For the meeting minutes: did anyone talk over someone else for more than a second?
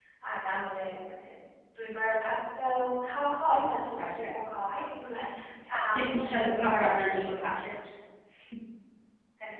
Yes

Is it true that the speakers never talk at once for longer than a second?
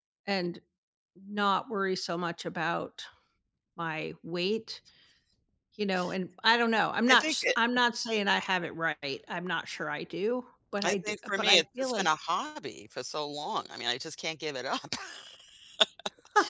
No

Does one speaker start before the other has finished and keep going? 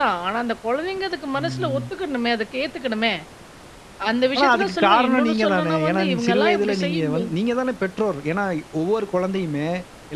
Yes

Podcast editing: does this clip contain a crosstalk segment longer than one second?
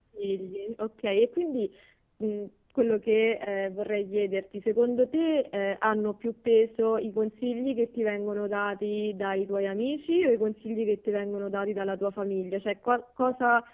No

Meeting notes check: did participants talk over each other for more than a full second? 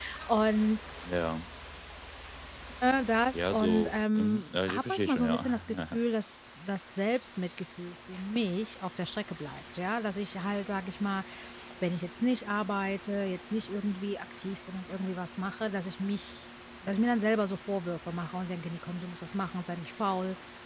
Yes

